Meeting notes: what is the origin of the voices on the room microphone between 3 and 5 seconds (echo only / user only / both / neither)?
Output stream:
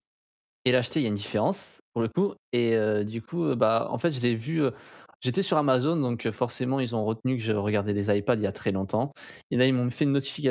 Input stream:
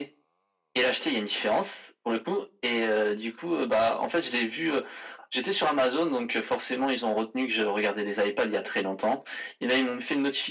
echo only